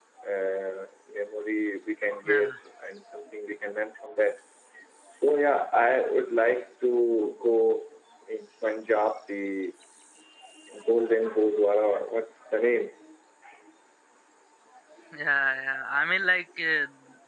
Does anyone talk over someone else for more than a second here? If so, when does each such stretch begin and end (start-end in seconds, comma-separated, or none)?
none